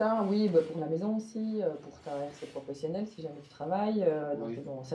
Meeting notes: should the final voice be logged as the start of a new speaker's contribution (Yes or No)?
No